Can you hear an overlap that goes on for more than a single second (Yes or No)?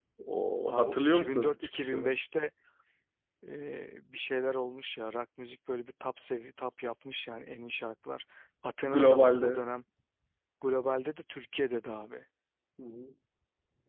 Yes